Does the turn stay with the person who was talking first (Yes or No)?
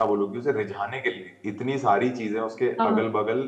Yes